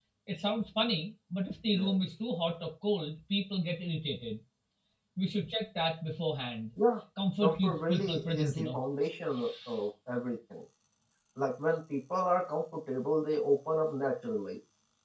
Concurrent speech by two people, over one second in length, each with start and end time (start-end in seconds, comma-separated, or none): 7.4-8.8